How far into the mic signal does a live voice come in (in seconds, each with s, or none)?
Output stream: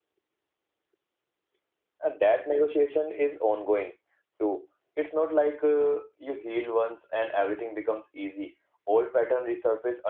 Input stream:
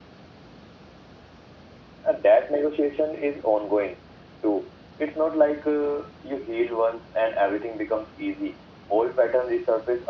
none